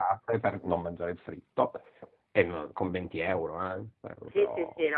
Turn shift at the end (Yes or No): Yes